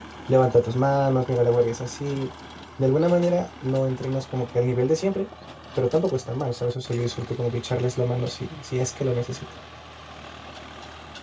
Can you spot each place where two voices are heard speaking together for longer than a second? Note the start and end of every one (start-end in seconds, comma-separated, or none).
none